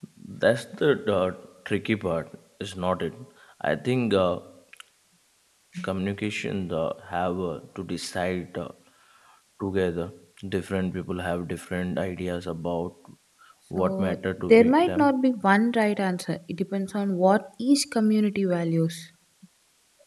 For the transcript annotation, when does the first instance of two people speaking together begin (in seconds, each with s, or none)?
13.8 s